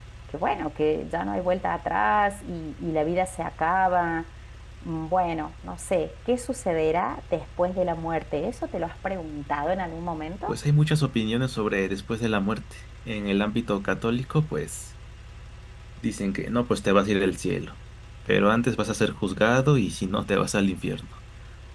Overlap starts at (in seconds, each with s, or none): none